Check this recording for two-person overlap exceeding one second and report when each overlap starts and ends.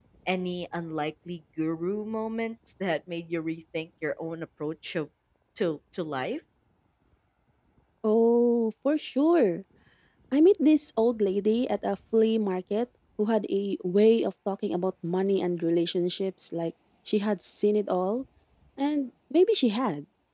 none

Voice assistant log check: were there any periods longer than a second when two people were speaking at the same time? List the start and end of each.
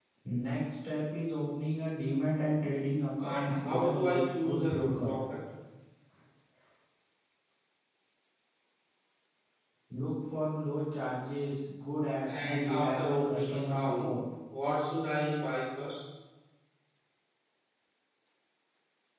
3.2-5.1, 12.3-14.2

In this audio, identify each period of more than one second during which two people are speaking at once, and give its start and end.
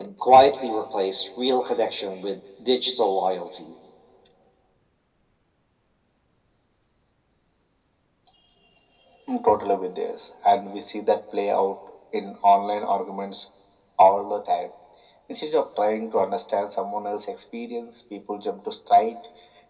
none

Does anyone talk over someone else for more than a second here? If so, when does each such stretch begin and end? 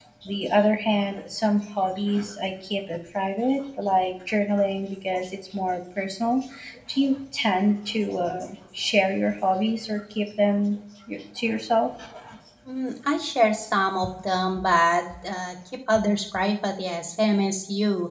none

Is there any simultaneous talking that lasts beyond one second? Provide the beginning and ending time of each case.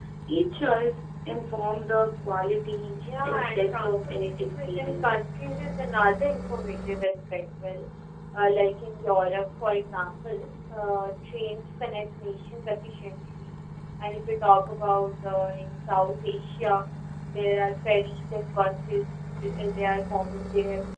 3.2-5.1

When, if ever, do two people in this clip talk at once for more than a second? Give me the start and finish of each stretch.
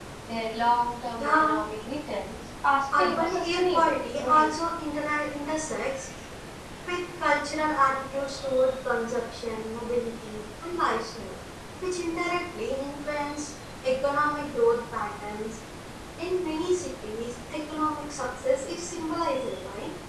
3.0-4.5

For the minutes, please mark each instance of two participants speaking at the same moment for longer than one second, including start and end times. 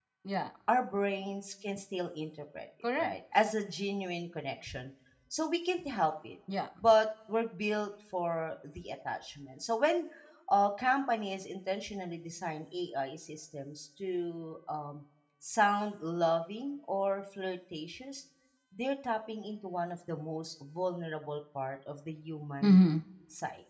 none

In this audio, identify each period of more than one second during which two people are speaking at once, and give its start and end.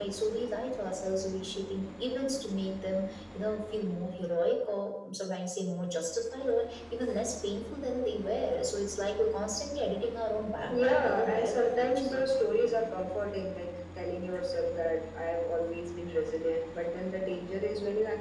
10.7-12.2

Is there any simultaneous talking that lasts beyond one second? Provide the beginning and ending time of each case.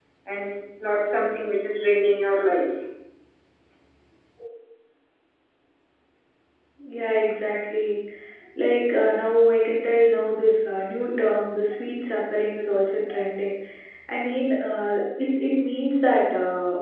none

